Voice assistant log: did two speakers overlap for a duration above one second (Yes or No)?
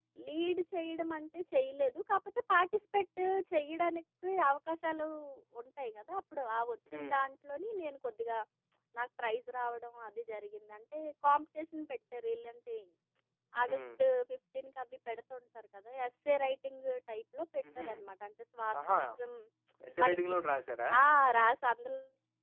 No